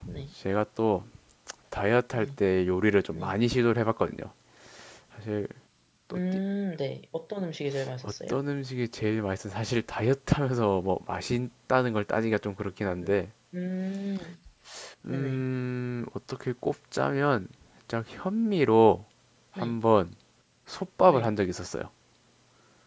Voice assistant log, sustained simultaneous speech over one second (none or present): none